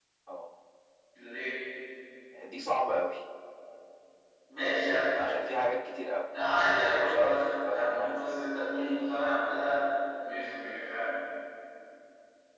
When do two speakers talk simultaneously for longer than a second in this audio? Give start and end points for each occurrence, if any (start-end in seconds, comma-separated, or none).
6.7-8.4